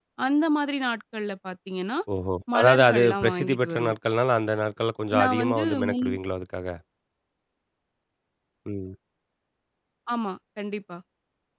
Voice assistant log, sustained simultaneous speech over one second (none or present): present